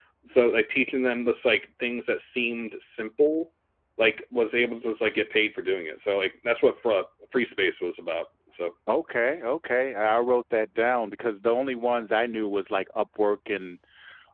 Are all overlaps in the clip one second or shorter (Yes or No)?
Yes